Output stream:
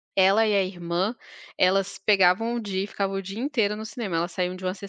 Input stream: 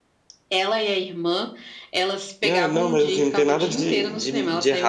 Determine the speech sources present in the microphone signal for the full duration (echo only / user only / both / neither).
both